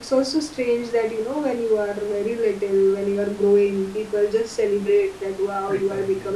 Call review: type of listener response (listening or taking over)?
listening